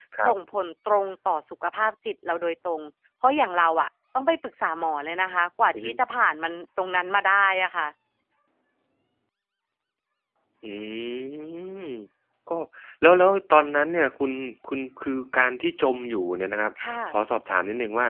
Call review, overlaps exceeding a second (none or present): none